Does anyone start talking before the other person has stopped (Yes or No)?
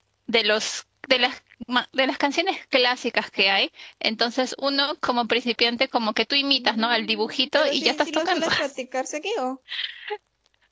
Yes